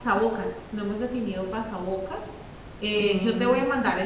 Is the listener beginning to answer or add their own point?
No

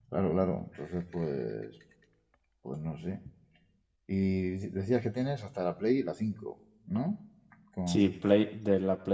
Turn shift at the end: Yes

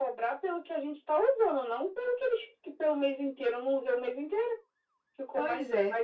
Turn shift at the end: No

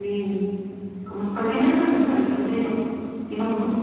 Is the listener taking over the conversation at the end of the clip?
No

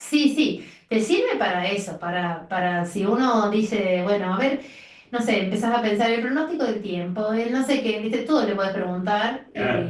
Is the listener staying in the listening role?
No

